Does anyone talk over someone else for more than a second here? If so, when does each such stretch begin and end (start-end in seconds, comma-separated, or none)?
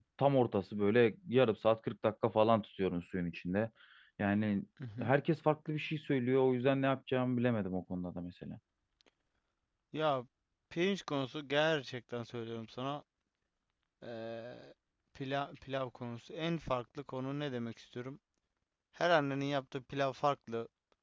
none